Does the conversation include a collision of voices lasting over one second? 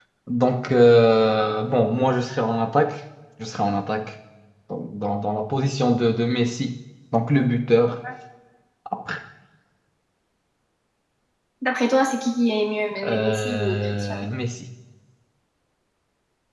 Yes, from 13.0 s

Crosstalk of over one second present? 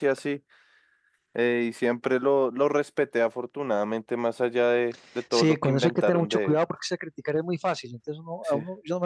Yes, from 5.3 s

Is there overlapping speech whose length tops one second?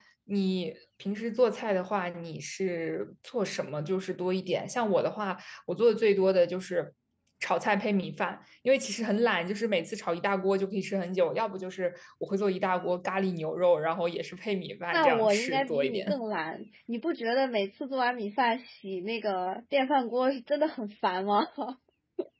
Yes, from 14.9 s

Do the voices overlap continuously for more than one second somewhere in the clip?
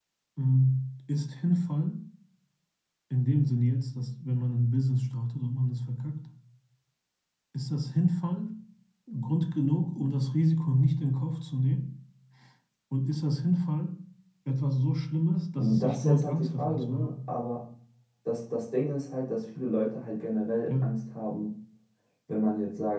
Yes, from 15.6 s

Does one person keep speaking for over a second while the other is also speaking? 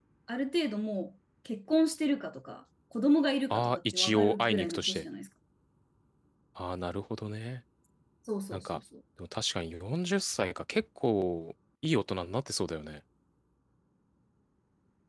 Yes, from 3.5 s

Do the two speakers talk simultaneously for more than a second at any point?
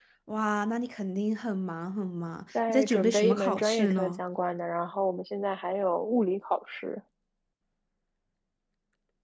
Yes, from 2.6 s

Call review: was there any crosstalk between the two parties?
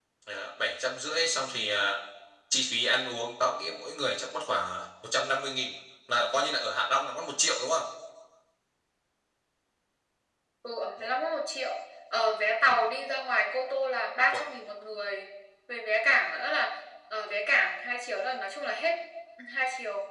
No

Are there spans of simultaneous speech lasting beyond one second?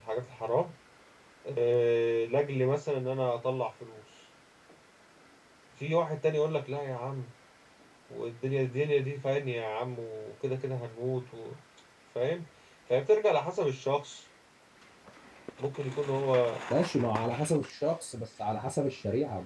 No

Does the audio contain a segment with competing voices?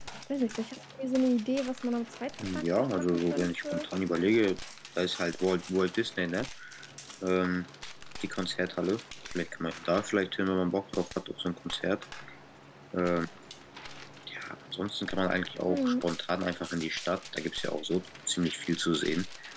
Yes, from 2.5 s

